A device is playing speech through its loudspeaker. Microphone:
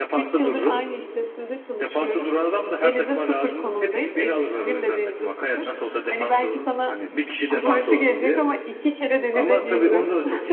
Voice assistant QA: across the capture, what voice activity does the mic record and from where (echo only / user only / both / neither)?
both